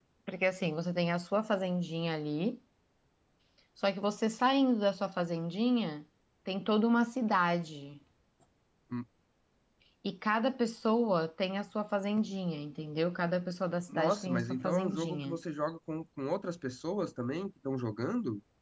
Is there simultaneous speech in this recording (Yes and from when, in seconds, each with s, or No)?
Yes, from 13.9 s